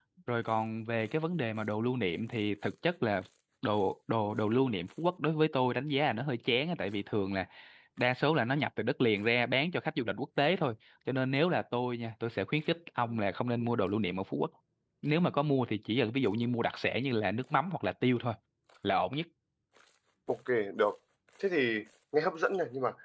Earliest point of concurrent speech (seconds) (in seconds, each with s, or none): none